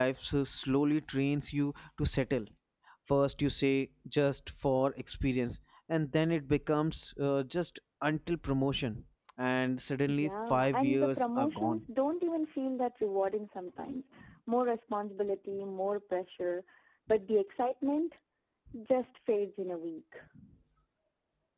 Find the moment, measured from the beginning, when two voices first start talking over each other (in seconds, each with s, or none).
10.1 s